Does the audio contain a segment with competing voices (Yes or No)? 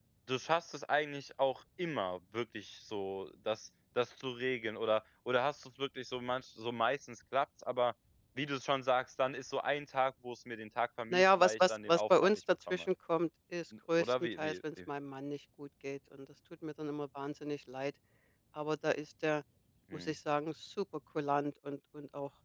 Yes